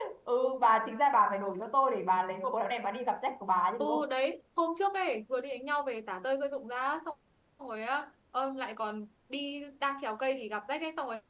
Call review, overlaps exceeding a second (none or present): none